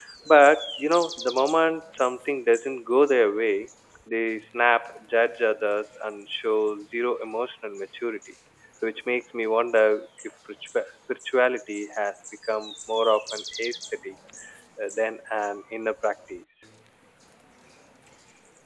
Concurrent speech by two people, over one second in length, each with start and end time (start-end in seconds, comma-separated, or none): none